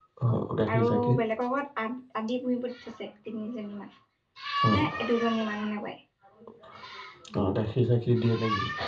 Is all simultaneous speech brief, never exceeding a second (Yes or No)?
Yes